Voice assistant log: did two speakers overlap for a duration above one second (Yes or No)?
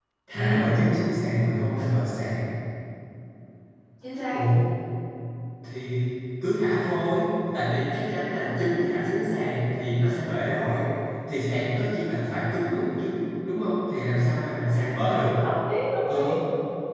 No